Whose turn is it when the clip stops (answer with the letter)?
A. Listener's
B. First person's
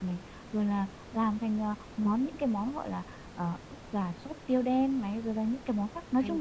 B